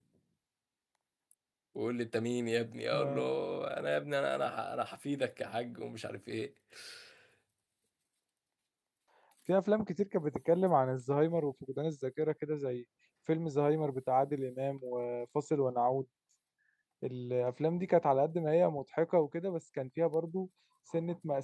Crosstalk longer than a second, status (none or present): none